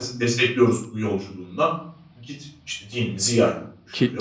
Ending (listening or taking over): taking over